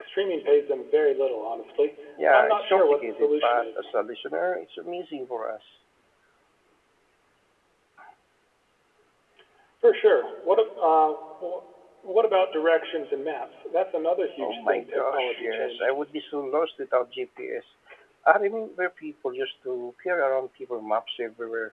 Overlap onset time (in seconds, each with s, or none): 2.3 s